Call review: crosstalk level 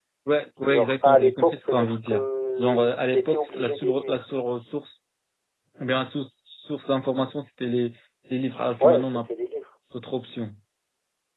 present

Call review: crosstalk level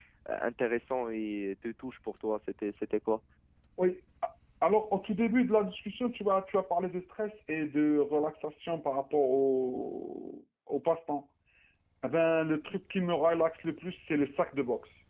none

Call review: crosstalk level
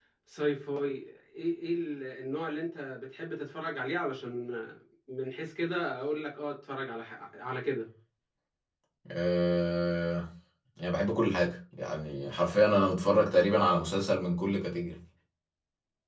none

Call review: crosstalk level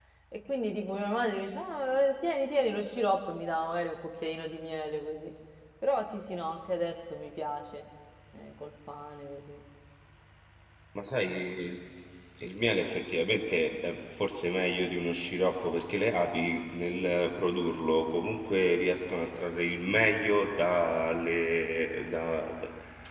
none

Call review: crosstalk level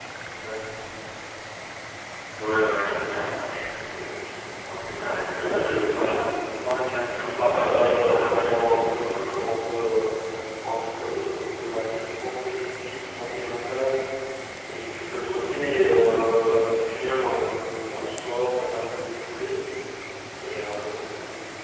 present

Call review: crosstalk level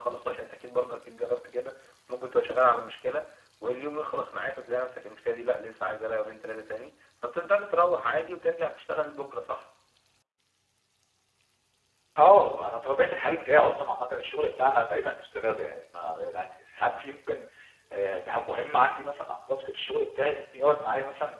none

